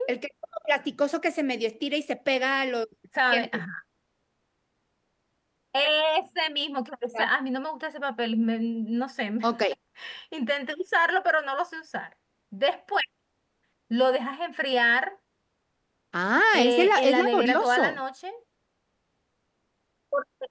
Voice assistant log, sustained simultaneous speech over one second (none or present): present